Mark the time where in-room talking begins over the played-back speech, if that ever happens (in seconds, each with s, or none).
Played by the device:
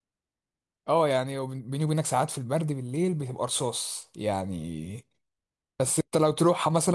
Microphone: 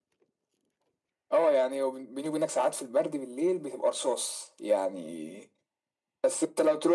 none